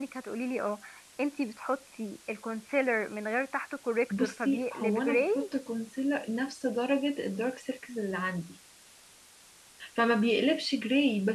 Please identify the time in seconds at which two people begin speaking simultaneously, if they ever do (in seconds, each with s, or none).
4.1 s